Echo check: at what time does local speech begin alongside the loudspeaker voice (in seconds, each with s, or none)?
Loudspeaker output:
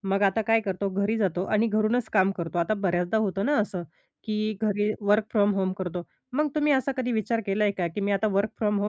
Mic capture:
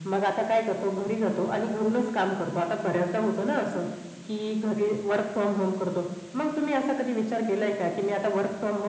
none